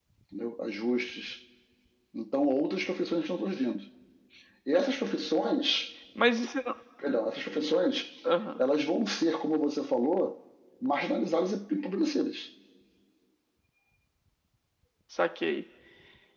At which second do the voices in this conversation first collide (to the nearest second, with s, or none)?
none